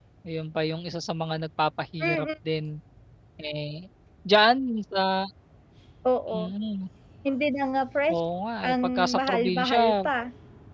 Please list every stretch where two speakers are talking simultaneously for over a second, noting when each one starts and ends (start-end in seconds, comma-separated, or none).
8.6-10.1